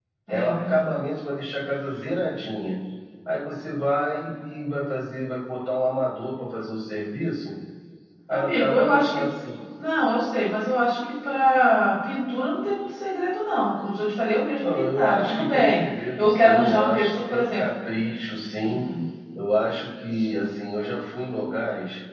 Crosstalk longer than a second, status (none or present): present